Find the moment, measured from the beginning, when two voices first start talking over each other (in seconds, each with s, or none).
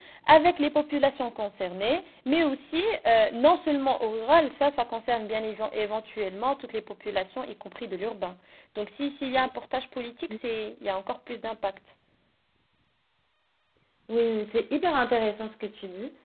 none